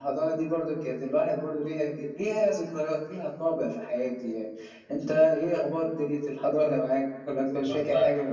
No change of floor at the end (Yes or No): No